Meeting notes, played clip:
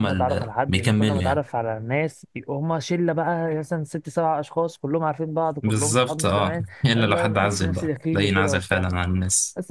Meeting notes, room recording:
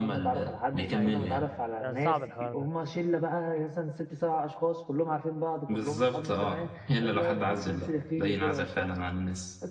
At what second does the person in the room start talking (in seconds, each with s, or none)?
0.9 s